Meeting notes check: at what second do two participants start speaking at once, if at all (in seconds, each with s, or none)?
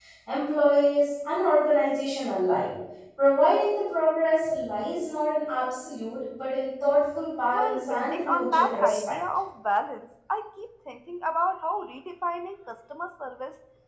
7.5 s